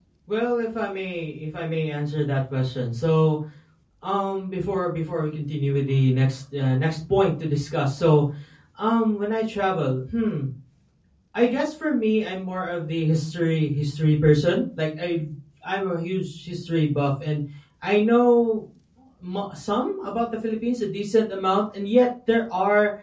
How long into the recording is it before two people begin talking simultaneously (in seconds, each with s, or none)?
none